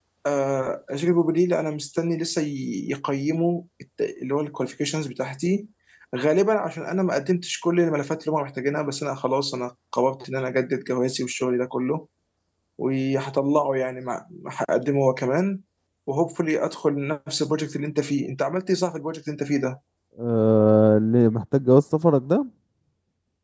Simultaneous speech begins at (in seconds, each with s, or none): none